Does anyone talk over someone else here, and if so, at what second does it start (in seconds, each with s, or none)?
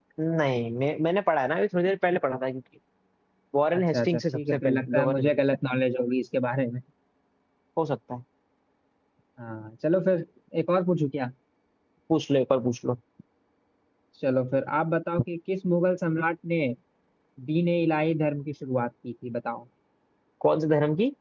3.7 s